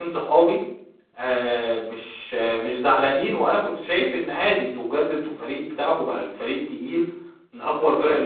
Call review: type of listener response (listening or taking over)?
listening